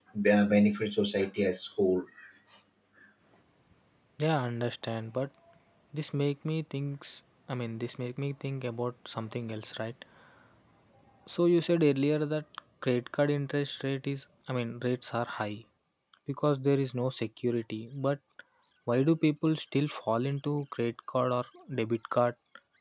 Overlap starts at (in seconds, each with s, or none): none